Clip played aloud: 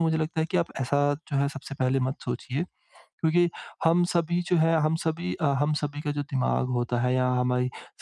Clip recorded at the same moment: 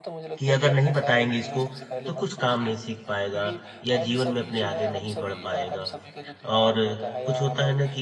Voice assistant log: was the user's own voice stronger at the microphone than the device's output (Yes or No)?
Yes